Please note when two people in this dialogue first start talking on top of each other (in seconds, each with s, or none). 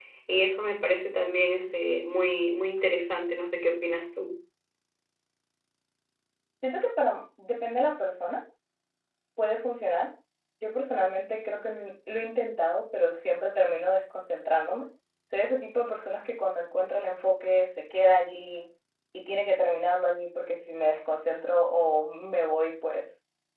none